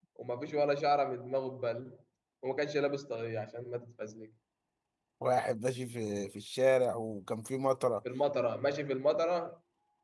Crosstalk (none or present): none